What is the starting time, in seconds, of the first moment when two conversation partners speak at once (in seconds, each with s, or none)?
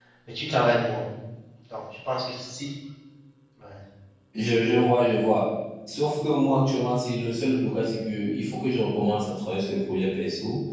none